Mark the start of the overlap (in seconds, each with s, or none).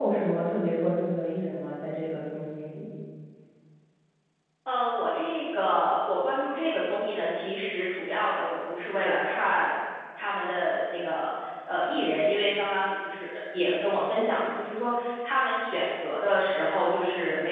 none